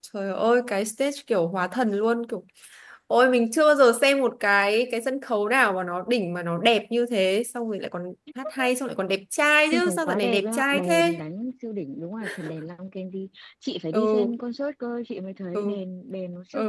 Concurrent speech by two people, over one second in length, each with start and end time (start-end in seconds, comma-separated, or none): 9.7-11.1